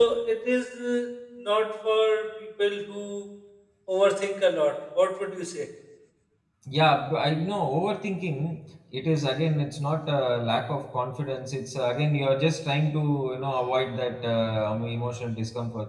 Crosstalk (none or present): none